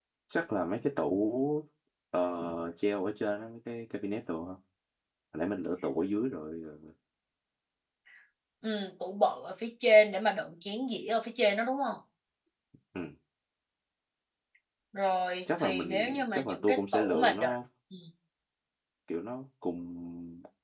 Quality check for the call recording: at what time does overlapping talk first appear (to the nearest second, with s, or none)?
16 s